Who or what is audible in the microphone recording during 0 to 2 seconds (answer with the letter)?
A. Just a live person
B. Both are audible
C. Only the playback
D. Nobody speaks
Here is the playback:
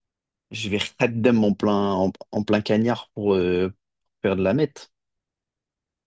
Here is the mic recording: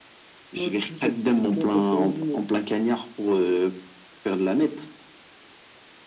B